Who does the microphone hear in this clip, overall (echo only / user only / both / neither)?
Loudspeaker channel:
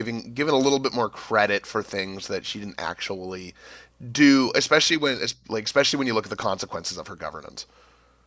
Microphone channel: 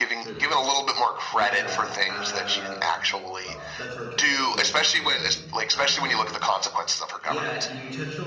both